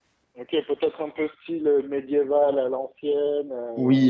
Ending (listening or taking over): taking over